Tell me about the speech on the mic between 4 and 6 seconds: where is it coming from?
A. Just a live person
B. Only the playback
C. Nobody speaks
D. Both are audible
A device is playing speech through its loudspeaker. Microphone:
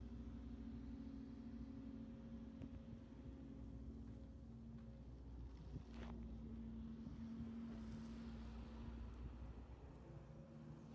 C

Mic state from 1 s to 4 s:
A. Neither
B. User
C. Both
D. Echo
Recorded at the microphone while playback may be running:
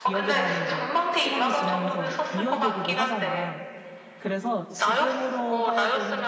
C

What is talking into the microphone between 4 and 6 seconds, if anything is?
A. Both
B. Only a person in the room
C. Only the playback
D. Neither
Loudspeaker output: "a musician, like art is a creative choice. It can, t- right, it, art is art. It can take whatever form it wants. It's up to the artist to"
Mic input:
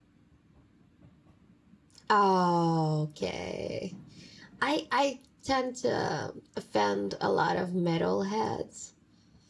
B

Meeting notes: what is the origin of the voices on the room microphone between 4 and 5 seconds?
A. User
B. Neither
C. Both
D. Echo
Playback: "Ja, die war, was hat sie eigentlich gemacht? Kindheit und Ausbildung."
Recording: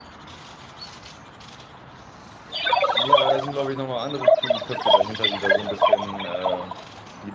C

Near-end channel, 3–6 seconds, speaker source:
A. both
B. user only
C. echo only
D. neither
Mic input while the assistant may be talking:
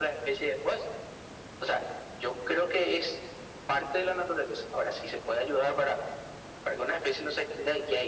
C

